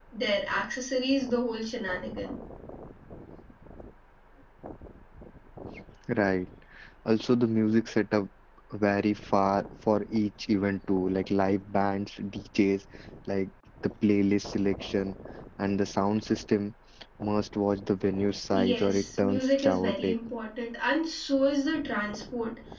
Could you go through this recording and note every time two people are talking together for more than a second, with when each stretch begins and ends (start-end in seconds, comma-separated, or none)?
18.5-20.1